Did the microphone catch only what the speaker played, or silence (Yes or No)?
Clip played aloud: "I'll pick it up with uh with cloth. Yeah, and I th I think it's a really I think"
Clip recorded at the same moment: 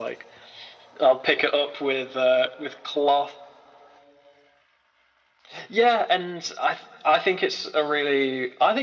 Yes